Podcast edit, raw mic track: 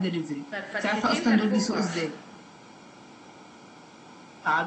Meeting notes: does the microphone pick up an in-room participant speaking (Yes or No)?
Yes